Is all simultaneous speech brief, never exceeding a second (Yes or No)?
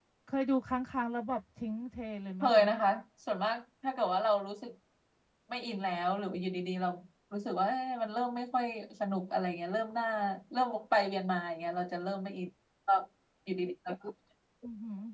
Yes